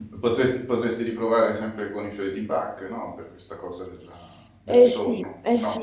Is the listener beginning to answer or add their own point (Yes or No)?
Yes